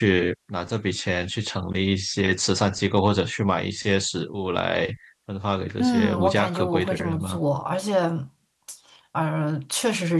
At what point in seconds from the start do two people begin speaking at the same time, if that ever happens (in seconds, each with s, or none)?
5.8 s